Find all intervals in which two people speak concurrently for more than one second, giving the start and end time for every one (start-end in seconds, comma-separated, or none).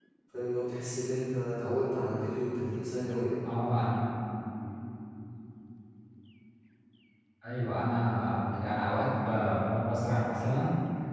none